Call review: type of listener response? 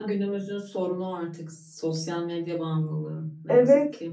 taking over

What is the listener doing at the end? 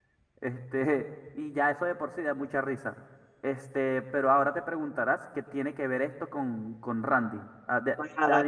taking over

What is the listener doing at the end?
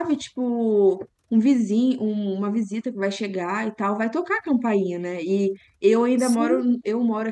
listening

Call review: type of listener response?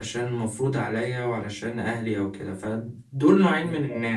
listening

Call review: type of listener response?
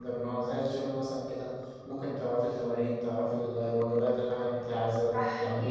taking over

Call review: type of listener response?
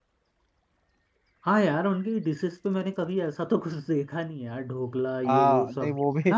taking over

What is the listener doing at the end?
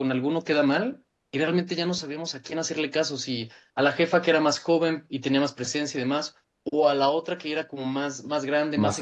listening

